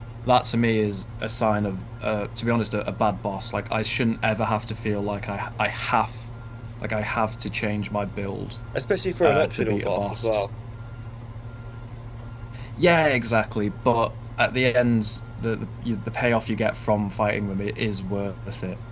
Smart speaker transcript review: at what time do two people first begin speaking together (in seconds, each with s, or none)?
9.2 s